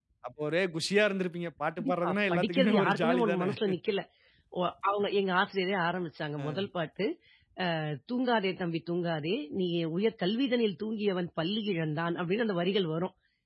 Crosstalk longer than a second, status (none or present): present